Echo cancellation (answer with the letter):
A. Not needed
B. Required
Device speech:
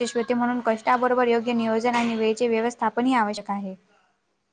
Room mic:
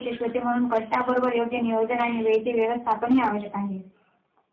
B